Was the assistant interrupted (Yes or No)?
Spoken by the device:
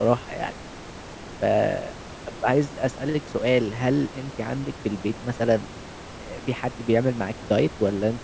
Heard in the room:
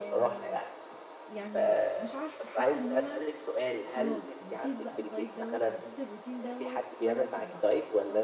Yes